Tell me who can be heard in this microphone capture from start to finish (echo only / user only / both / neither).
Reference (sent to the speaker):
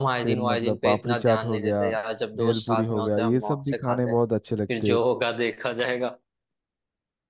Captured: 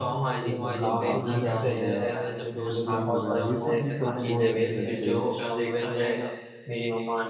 both